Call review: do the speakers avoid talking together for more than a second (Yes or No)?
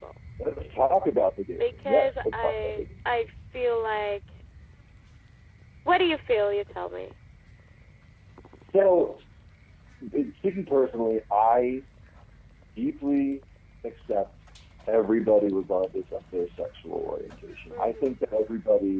No